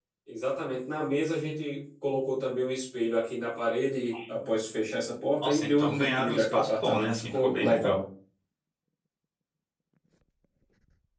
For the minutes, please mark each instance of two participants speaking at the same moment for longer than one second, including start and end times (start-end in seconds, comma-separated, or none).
5.4-8.0